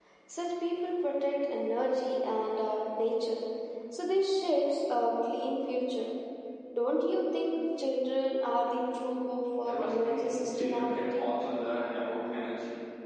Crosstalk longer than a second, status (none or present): present